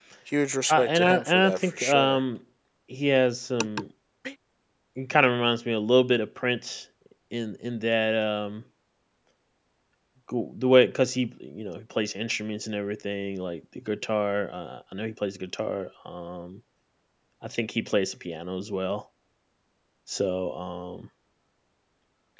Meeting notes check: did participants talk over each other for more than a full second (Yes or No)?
Yes